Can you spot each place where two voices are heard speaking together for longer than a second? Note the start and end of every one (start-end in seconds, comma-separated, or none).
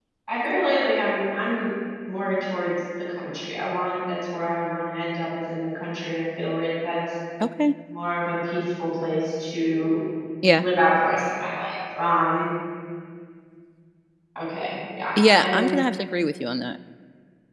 none